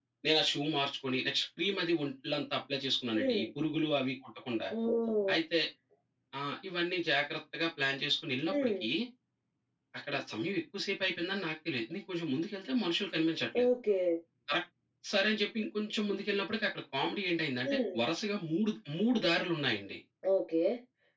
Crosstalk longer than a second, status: none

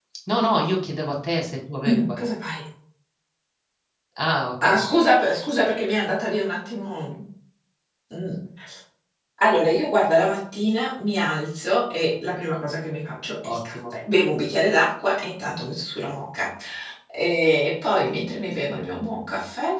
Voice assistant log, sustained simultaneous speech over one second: none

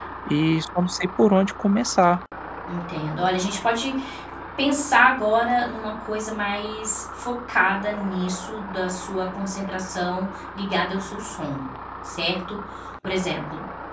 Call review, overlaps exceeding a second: none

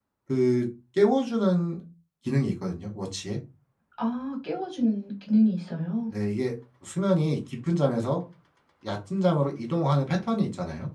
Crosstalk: none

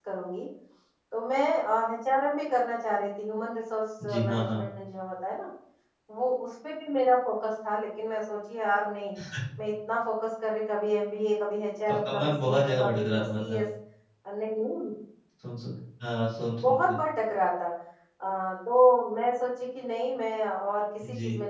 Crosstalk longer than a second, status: present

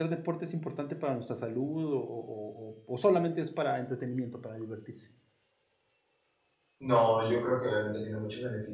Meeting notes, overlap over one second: none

